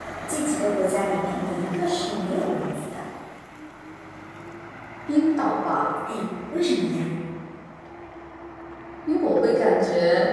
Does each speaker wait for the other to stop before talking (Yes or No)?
Yes